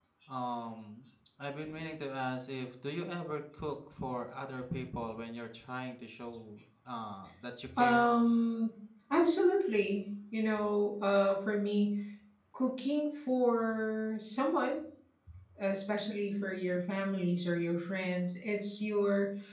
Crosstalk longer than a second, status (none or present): none